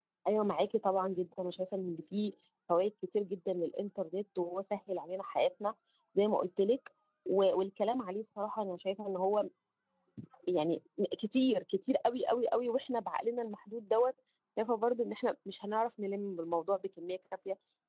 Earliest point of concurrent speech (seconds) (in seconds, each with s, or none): none